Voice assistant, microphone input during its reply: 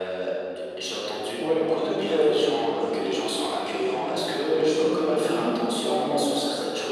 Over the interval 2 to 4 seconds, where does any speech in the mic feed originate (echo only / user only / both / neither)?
both